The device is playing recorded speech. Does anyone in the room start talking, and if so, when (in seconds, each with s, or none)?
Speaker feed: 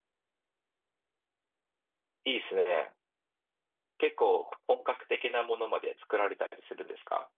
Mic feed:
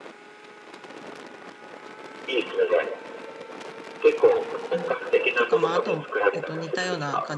4.7 s